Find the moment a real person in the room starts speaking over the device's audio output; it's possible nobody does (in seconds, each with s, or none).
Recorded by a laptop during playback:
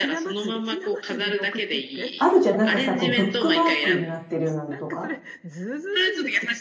2.2 s